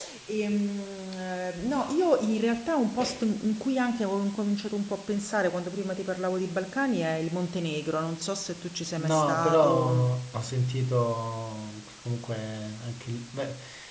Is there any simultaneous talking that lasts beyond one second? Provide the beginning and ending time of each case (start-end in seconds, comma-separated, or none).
9.0-10.2